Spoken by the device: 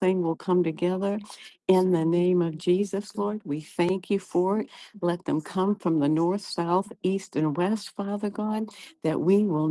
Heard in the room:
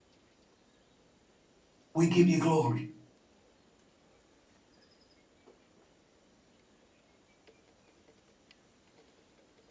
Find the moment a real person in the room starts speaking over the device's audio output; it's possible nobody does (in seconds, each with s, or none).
1.9 s